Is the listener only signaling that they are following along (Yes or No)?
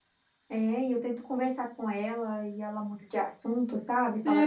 No